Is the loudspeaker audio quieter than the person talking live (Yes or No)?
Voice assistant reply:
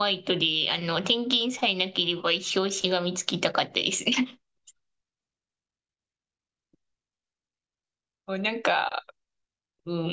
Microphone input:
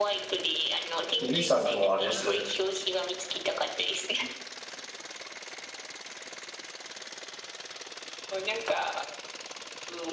Yes